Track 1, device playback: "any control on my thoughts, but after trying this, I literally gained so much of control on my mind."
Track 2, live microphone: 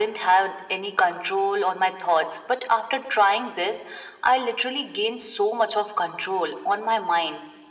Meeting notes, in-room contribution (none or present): none